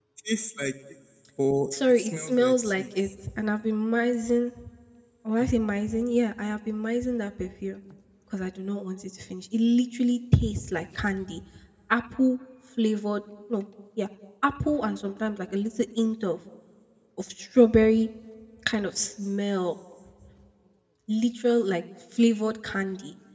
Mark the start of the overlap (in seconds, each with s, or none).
1.9 s